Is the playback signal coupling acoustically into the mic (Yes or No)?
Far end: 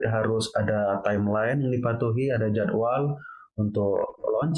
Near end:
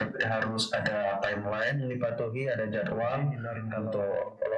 Yes